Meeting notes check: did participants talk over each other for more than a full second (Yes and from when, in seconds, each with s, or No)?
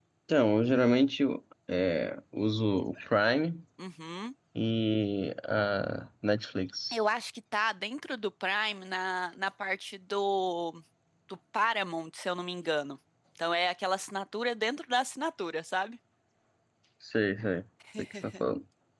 No